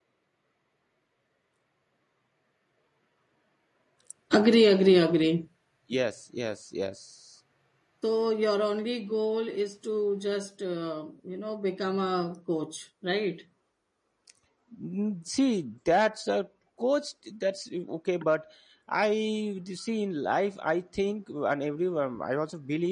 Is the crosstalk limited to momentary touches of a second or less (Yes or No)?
Yes